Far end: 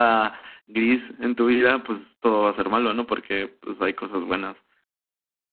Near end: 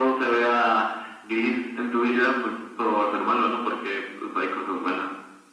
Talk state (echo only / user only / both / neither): echo only